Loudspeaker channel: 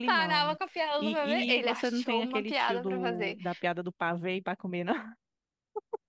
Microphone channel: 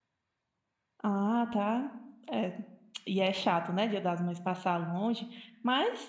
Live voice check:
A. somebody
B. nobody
A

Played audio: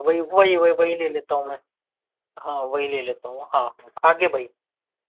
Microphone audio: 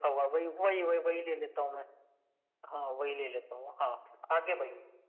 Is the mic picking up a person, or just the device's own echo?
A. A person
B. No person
B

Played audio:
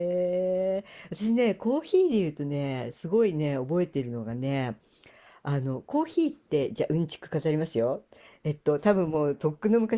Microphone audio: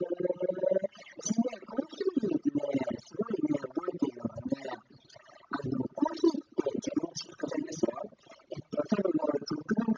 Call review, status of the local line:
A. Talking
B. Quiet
B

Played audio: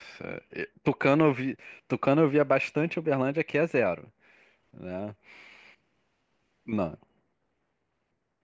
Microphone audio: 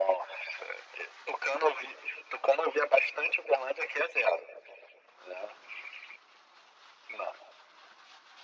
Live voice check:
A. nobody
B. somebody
A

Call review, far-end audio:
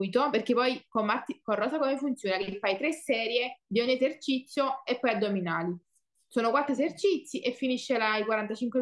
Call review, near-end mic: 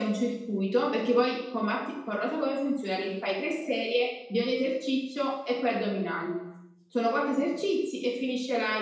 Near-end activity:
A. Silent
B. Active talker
A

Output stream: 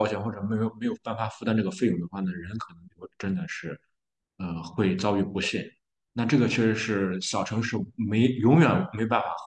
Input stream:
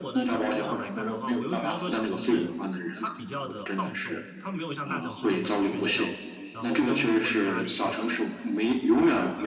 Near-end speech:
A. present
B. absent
A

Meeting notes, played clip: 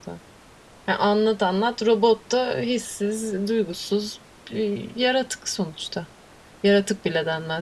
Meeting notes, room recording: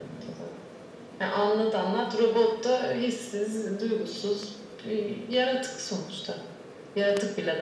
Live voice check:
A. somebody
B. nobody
B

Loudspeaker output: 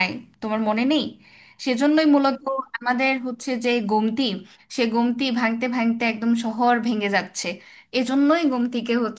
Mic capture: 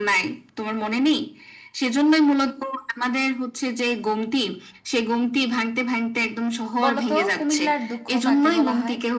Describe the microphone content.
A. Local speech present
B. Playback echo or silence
A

